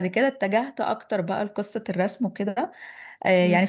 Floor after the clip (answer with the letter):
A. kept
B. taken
A